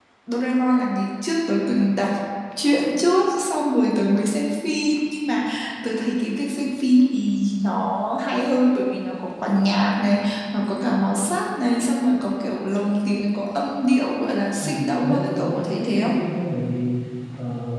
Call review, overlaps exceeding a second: present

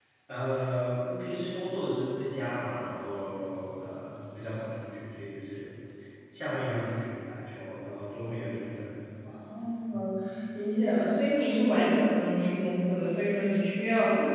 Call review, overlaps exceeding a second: none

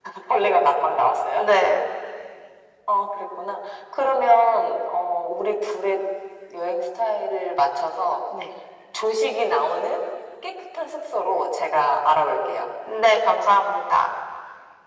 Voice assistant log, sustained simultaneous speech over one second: none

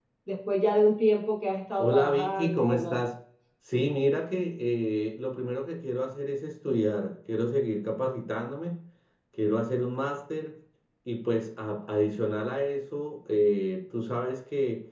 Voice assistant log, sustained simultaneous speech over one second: present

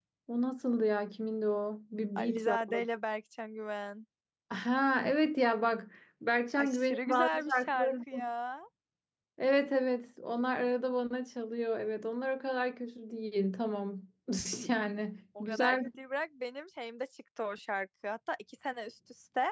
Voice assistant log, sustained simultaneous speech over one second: present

